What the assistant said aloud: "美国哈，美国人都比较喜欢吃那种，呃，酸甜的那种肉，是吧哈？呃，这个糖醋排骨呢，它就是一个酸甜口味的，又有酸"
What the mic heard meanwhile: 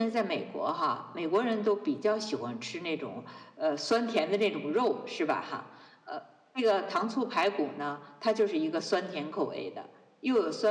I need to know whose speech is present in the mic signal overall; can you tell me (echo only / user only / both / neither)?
echo only